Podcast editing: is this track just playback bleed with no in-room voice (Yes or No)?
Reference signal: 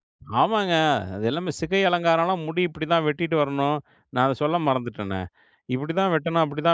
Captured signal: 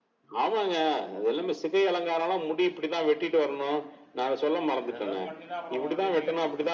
No